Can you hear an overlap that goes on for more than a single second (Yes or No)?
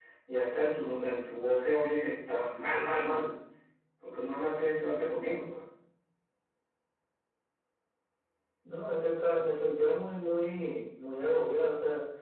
No